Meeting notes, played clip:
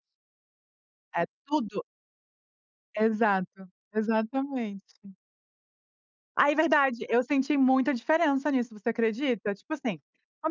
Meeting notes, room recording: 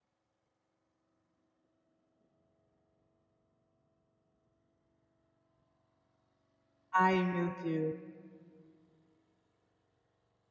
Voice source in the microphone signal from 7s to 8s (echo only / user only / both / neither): user only